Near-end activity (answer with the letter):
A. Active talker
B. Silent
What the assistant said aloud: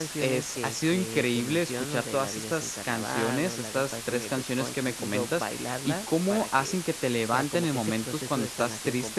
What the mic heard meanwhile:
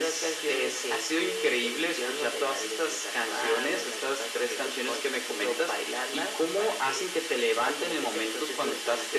B